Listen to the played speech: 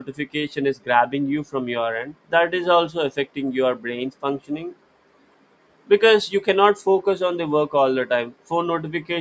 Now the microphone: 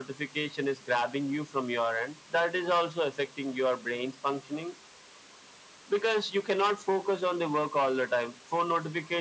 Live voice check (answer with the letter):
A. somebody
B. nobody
B